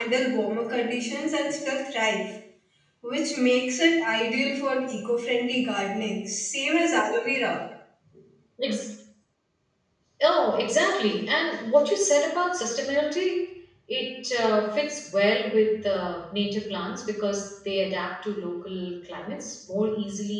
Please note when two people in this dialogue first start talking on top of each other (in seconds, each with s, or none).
none